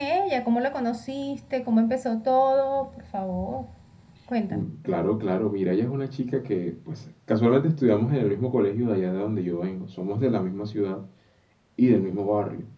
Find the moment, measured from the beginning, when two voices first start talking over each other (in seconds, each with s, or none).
none